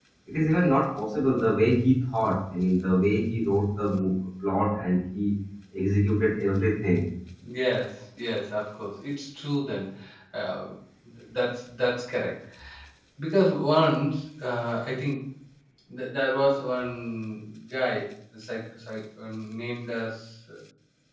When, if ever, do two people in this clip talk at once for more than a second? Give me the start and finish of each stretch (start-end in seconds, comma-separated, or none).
none